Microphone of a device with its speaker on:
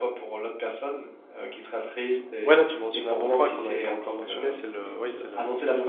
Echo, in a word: present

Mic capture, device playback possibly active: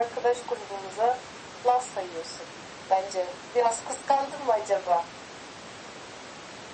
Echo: present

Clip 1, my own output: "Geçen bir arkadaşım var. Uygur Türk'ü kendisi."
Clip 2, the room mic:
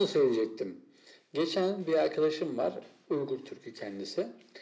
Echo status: present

